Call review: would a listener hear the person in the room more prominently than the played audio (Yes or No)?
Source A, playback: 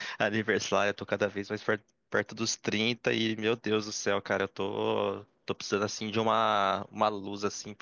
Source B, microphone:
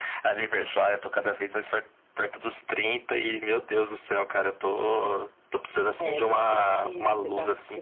No